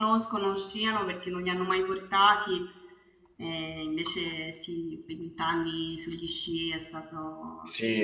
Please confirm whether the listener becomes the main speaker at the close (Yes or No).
Yes